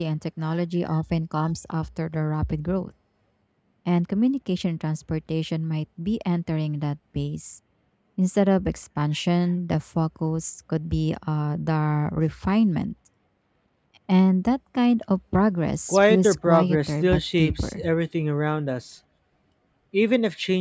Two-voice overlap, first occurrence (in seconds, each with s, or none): 15.9 s